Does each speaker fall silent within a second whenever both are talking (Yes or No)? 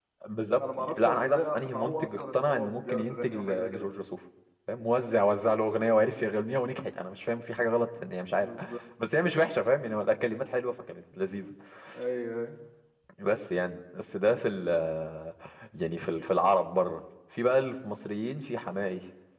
No